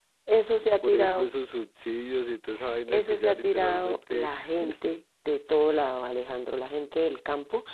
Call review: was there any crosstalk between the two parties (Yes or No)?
Yes